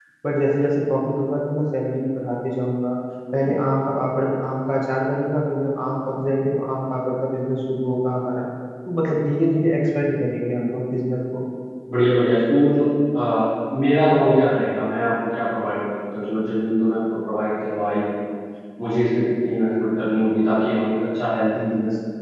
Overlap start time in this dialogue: none

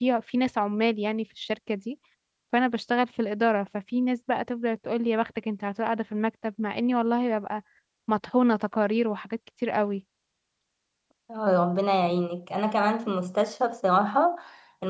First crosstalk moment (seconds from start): none

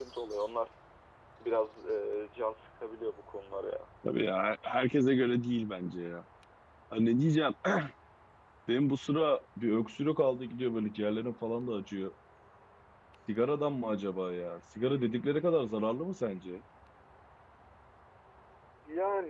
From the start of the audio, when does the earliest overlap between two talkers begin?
none

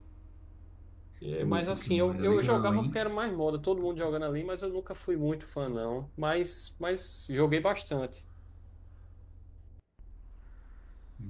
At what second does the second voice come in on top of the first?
1 s

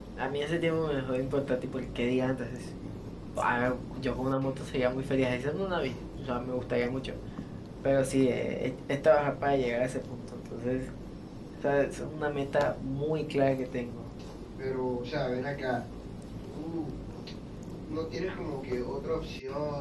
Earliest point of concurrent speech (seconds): none

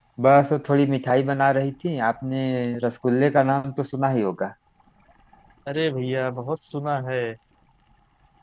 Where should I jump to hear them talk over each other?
none

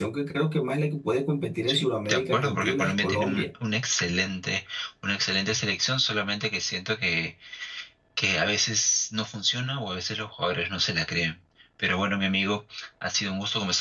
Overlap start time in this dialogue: 2 s

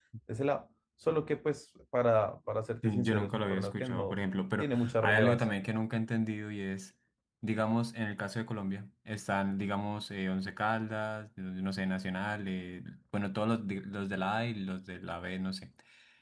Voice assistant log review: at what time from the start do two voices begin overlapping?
3 s

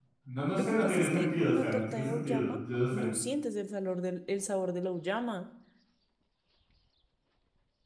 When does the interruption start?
1 s

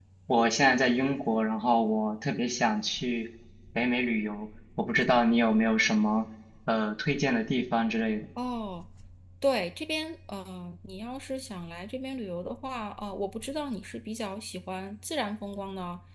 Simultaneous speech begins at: none

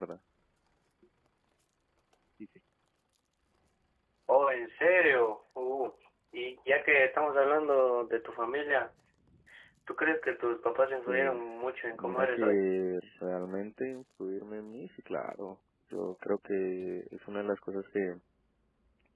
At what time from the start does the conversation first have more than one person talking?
11 s

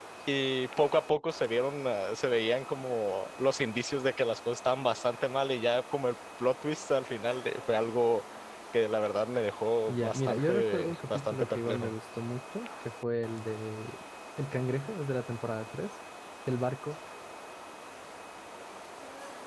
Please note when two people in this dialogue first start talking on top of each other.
10 s

